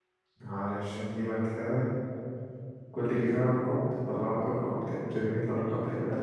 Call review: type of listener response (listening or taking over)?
taking over